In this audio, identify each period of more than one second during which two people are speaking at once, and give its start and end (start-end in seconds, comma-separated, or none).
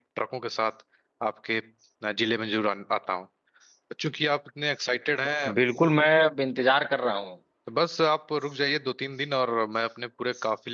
none